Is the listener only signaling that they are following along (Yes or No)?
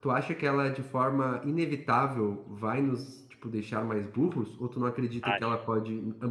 Yes